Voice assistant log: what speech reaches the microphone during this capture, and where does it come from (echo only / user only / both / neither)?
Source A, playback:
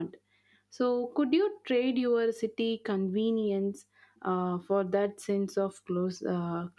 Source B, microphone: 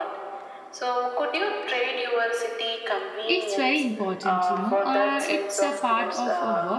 both